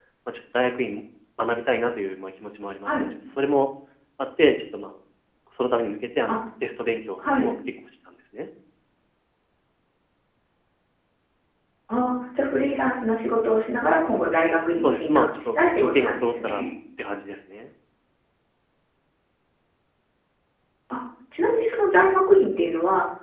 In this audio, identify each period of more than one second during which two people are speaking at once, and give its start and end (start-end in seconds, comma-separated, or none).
14.8-16.6